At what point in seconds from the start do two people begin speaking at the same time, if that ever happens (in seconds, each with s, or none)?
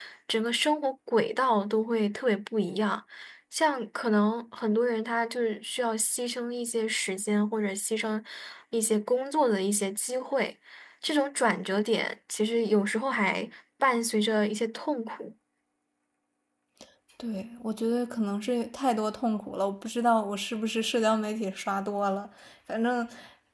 none